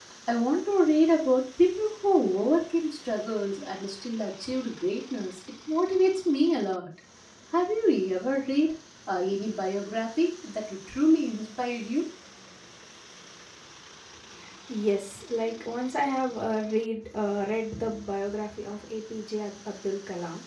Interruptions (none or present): none